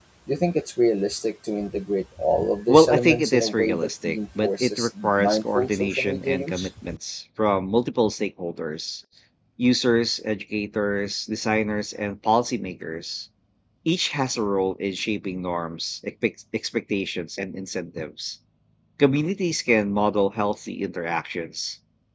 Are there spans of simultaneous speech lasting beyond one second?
Yes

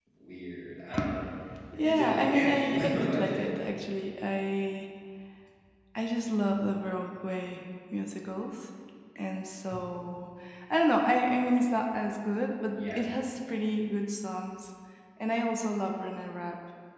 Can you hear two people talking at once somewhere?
Yes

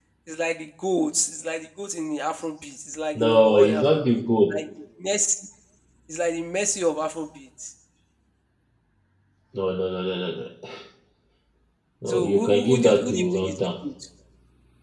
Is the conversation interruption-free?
No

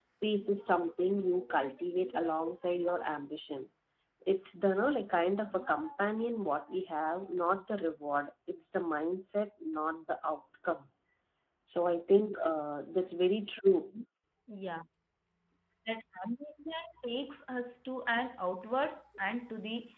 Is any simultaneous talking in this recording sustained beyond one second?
No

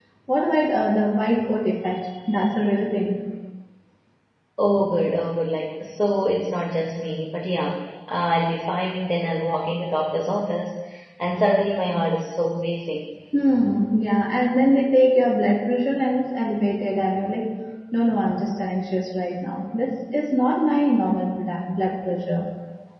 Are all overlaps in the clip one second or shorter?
Yes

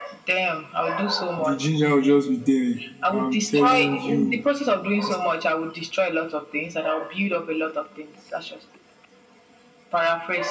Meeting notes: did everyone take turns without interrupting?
No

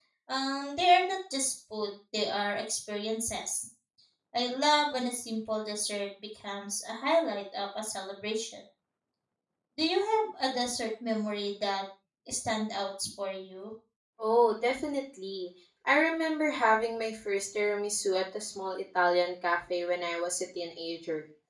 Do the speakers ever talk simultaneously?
No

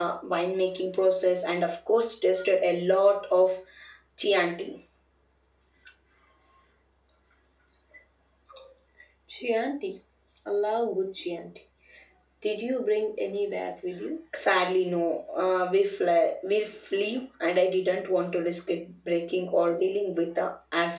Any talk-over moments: No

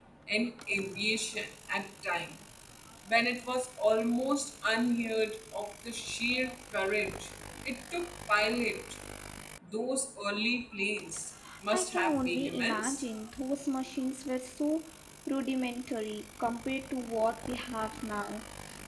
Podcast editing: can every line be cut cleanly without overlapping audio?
No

